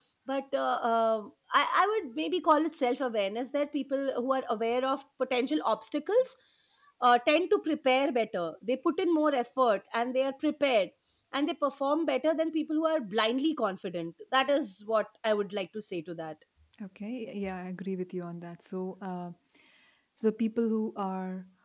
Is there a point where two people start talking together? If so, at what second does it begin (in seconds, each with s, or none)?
none